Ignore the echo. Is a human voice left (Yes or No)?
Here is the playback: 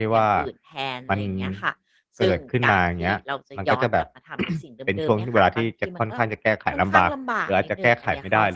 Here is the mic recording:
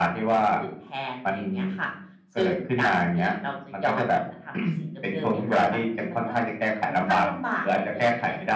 No